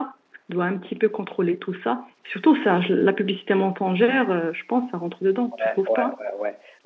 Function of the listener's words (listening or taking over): taking over